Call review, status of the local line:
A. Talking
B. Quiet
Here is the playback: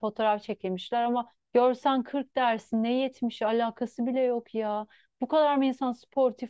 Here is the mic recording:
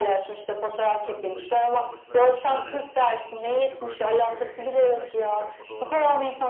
A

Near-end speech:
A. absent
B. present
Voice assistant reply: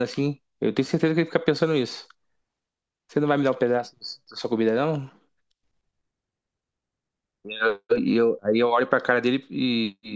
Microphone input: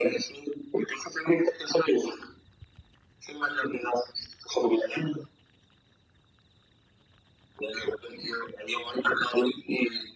A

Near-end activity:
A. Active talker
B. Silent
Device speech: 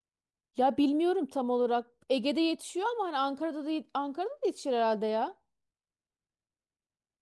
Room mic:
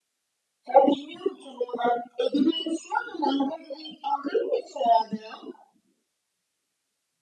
B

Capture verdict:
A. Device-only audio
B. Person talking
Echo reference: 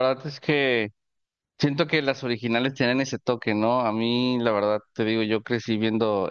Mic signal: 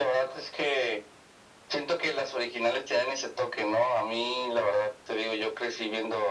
A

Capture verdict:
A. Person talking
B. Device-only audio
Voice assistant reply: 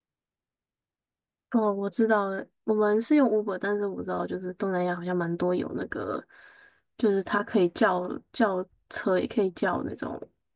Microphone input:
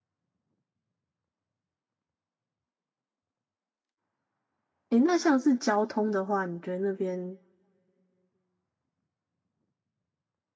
A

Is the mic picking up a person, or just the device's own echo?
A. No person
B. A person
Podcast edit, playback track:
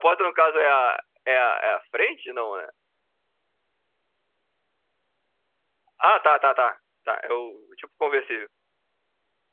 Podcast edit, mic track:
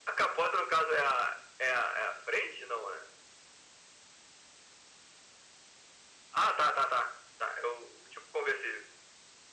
A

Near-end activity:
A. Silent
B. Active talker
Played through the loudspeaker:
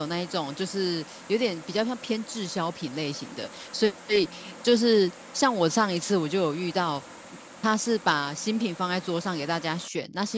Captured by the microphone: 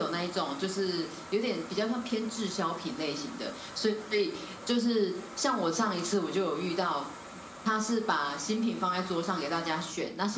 A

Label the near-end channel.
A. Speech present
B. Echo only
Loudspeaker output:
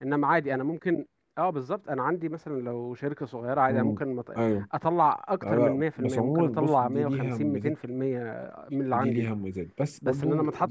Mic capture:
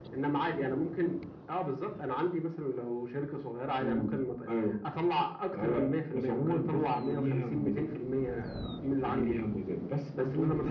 B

